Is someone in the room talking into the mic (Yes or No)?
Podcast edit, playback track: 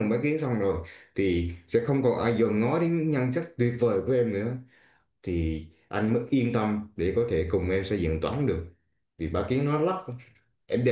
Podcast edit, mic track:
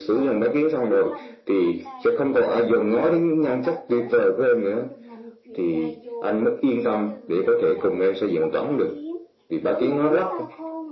Yes